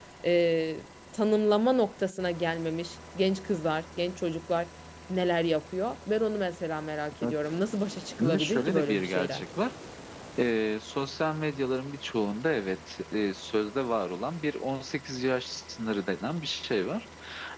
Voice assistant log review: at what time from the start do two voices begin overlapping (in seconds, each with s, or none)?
8.2 s